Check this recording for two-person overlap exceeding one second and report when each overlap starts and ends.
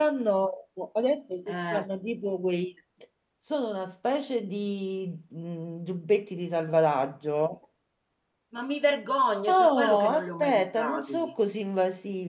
9.5-11.3

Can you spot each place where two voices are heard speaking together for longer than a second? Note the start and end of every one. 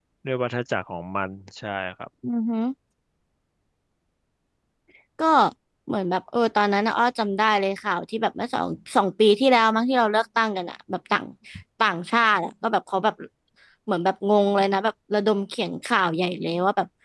none

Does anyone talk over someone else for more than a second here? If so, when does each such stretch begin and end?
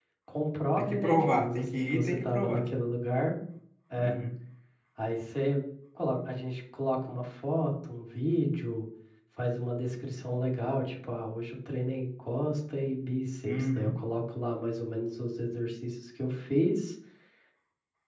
0.8-2.6

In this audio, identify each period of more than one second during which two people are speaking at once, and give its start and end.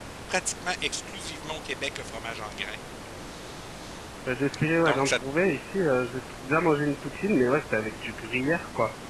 none

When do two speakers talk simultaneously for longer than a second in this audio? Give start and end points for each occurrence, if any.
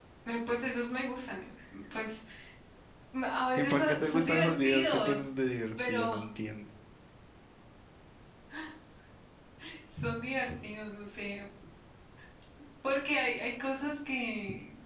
3.6-5.3

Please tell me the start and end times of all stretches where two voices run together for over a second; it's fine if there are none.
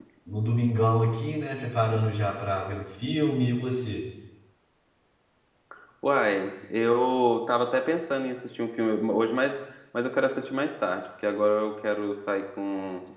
none

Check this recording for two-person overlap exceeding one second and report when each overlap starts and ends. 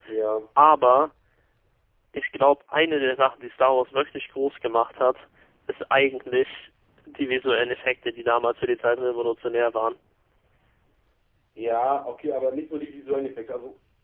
none

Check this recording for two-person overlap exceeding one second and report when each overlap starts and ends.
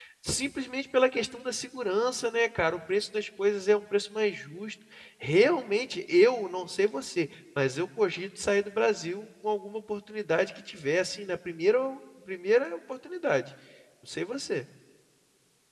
none

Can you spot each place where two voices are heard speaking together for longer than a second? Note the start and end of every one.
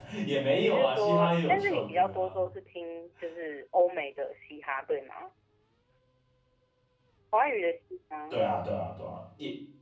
0.6-2.5

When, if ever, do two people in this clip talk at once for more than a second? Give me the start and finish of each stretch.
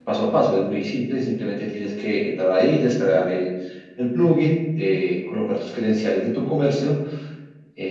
none

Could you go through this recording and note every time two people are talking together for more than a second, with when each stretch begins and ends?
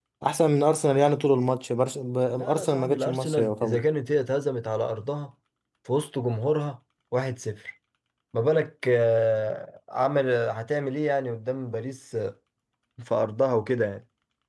2.3-3.8

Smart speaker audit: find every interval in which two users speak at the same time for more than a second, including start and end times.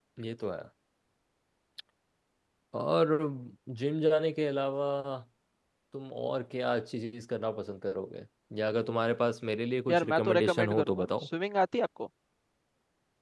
9.9-11.3

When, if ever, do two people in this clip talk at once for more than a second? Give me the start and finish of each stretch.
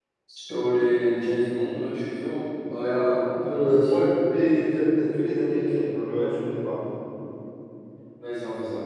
2.8-4.1

